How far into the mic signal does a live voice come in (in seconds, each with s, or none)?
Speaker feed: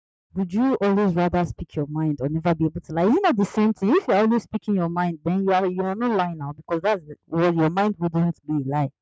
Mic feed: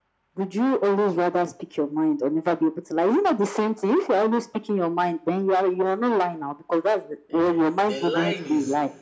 7.4 s